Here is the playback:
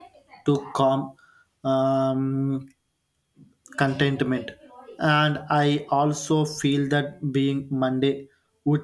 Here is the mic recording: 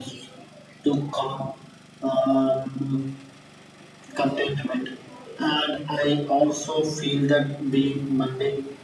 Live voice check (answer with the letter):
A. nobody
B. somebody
A